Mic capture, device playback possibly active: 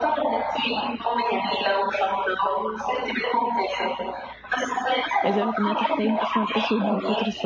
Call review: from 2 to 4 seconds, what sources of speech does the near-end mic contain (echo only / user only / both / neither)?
echo only